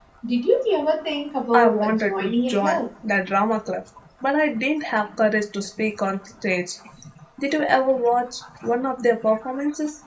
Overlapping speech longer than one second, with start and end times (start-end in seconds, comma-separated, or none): 1.5-2.8